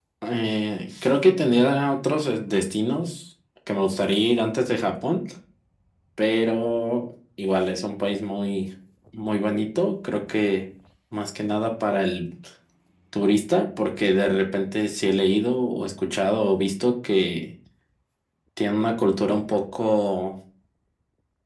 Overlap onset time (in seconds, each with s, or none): none